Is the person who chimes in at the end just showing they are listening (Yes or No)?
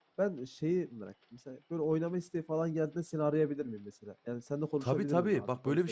No